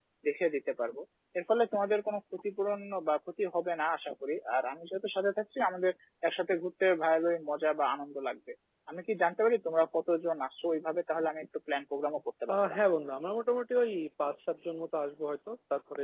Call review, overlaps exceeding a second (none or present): none